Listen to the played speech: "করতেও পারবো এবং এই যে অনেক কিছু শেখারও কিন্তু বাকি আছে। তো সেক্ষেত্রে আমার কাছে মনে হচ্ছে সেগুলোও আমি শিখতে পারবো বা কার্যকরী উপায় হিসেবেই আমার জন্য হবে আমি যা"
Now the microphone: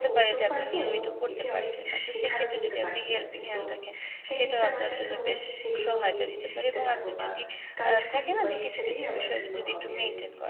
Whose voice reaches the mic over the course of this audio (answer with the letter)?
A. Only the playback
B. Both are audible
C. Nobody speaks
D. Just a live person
B